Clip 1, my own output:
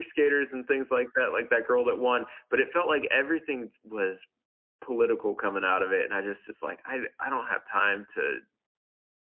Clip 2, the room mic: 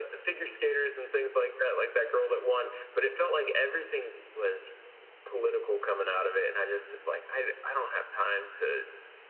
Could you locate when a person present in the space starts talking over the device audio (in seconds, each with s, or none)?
none